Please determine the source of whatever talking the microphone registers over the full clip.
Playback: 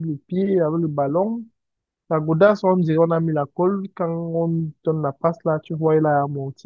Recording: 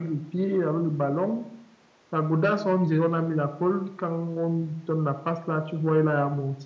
echo only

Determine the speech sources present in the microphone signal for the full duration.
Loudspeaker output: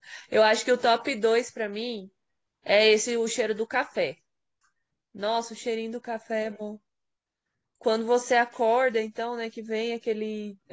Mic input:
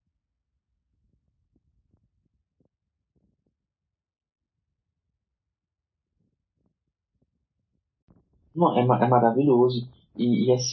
user only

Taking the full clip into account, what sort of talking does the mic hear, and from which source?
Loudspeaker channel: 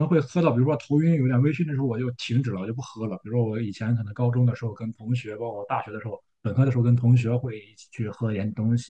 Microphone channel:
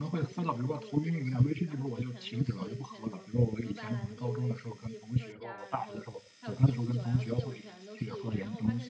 both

